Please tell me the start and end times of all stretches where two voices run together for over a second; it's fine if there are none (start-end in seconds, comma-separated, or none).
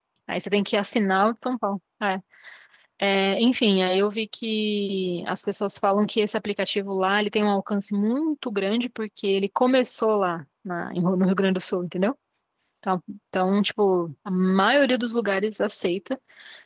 none